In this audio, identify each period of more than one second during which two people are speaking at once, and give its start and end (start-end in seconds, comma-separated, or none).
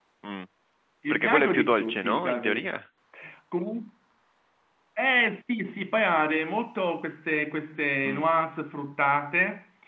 1.1-2.8